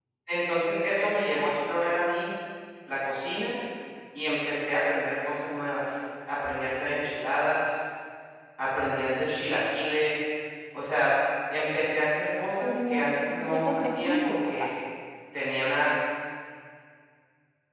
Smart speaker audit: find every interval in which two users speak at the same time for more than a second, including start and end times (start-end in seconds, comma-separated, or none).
12.6-14.7